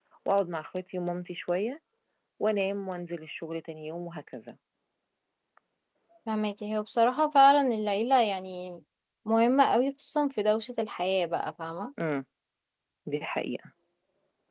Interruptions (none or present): none